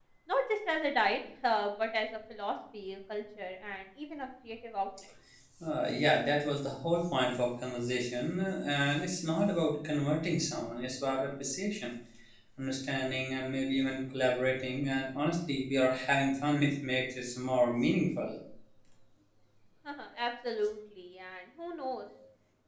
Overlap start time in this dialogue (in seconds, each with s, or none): none